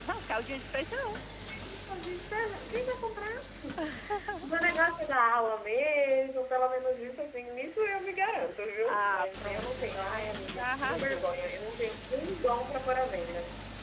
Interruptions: present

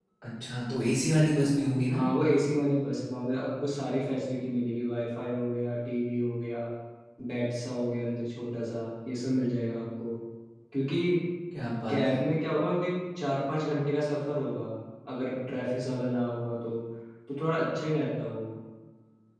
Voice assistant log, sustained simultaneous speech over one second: none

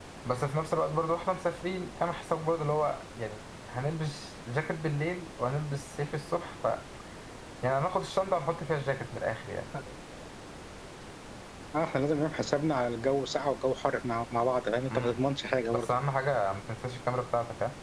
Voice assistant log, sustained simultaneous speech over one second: none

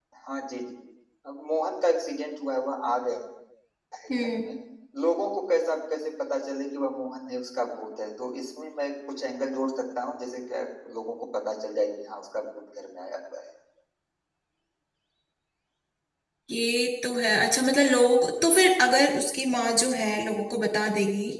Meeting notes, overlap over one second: none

